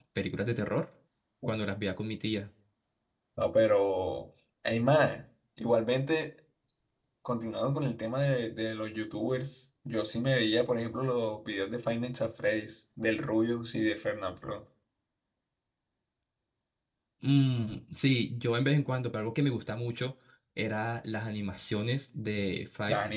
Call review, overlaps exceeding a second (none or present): none